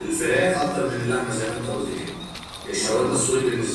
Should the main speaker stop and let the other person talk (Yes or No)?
No